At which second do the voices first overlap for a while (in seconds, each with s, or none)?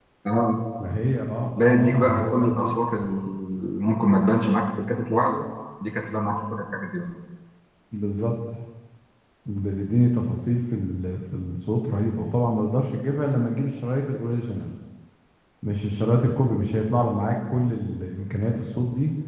1.6 s